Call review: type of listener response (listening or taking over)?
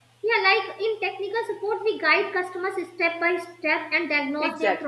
listening